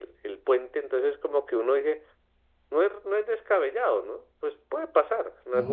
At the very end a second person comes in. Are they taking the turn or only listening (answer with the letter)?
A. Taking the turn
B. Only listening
B